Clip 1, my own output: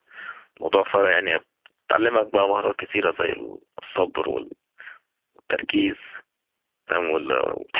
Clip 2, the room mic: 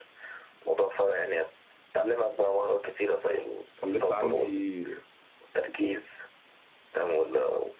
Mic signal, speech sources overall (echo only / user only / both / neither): both